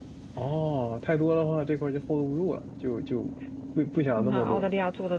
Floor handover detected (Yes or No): Yes